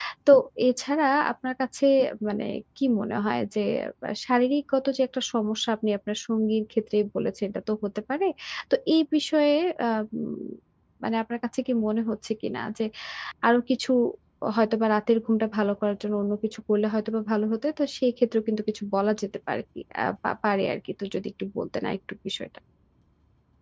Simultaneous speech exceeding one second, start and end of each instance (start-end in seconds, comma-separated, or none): none